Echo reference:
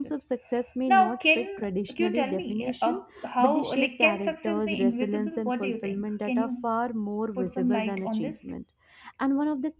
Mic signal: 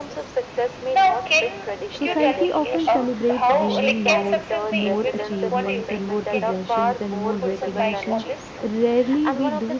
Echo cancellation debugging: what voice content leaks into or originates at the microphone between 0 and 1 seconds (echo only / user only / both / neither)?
echo only